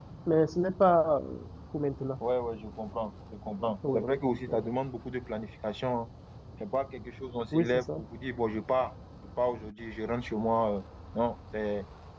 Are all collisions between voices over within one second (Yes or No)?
Yes